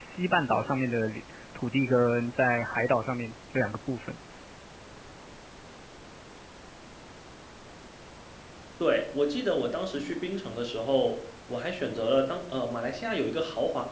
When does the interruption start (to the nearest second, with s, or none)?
none